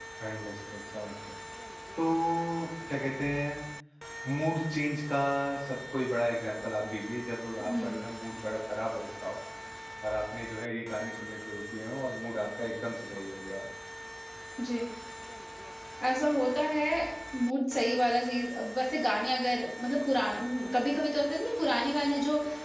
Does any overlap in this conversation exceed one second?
No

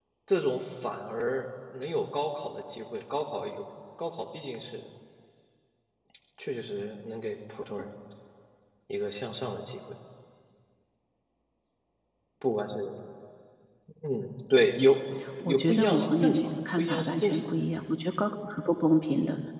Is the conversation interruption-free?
No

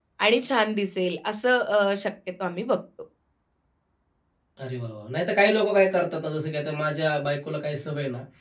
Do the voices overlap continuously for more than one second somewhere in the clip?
No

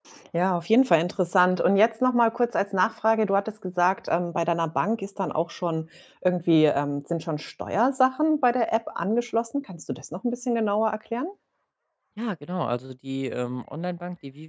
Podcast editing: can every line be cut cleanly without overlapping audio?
Yes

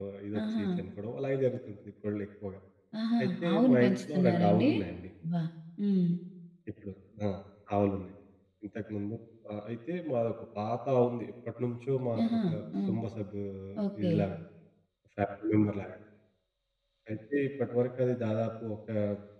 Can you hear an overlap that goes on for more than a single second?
Yes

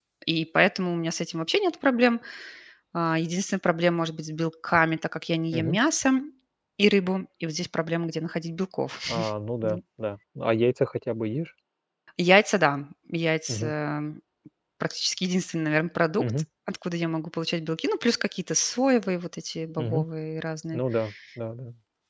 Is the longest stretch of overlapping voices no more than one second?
Yes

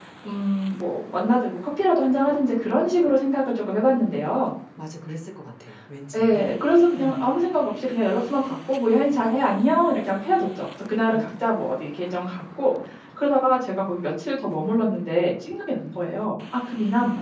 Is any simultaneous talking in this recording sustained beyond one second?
No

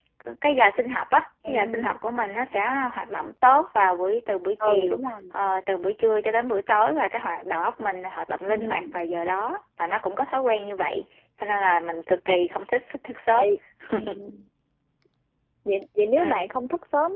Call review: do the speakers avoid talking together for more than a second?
Yes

